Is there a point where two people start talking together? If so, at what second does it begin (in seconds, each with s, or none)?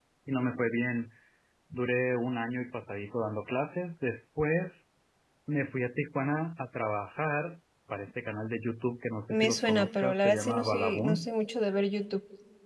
9.3 s